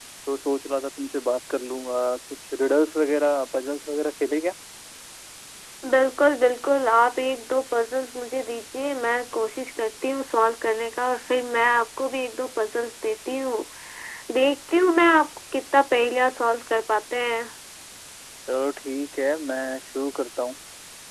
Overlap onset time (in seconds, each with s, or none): none